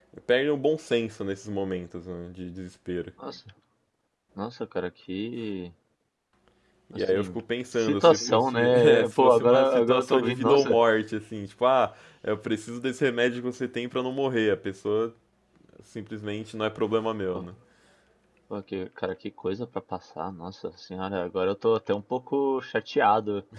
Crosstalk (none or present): present